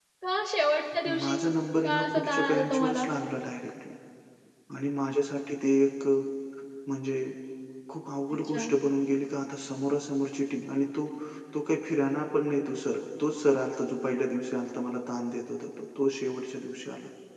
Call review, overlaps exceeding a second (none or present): present